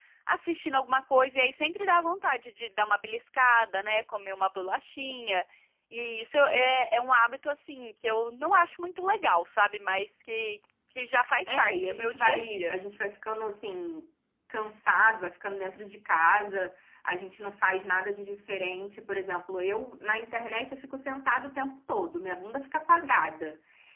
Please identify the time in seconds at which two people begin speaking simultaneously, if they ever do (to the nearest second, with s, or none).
11 s